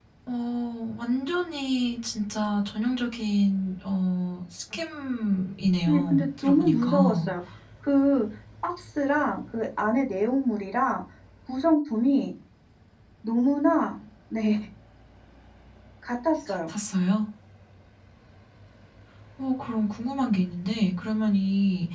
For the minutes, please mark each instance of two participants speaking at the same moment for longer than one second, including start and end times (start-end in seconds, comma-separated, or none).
5.9-7.3